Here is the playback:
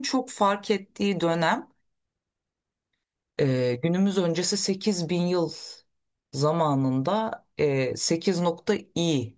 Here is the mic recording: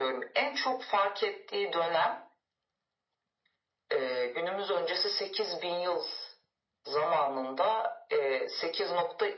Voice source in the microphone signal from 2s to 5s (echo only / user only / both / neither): echo only